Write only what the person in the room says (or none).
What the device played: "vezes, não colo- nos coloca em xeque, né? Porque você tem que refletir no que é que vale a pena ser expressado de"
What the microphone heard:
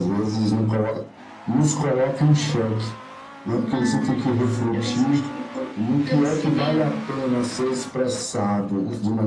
Mas eu tenho esse mistério pelo, pelo cinema.